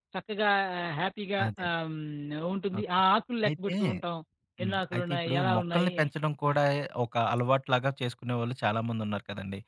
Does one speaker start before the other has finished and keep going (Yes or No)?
Yes